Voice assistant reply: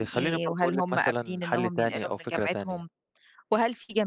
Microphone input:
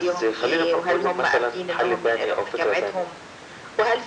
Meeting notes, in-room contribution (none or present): none